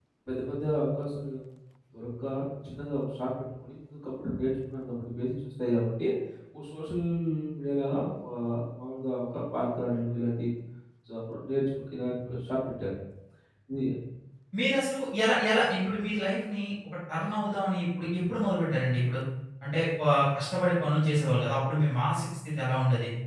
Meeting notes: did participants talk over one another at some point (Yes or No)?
No